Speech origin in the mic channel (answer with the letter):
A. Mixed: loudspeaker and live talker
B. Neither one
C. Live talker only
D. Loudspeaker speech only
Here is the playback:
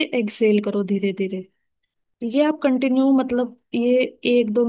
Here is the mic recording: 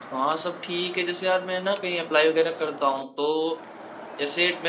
C